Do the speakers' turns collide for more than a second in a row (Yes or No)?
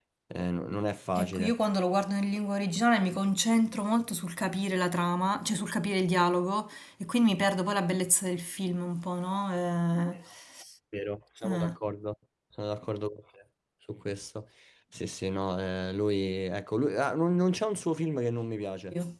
No